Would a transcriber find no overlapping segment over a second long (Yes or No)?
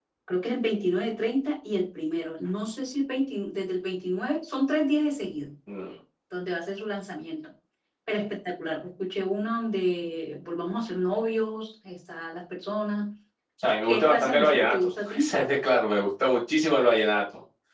No